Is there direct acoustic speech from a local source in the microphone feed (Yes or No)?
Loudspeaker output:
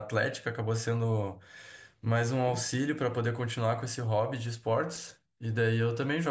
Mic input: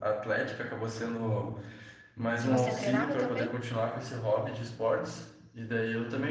Yes